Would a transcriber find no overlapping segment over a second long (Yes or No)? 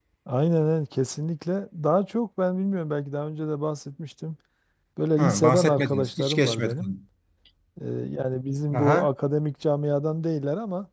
No